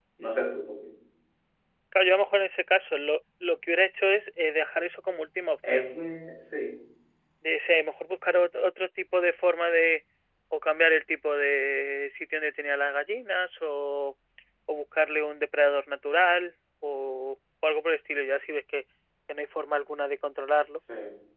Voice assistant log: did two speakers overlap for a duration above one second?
No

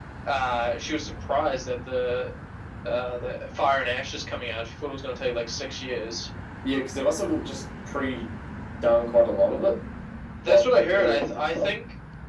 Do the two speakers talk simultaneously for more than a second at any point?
Yes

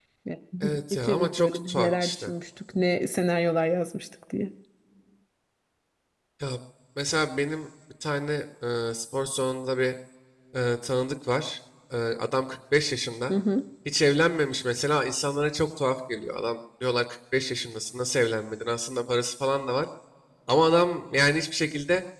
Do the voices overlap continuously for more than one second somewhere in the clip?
Yes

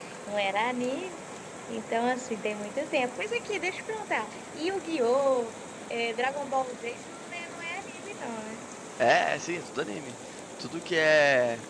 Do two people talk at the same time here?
No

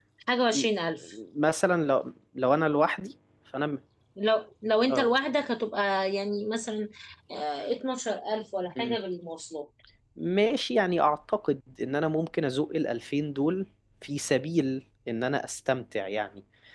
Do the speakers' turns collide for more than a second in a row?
No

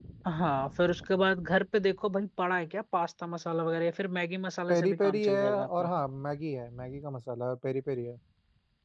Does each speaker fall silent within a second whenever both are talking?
No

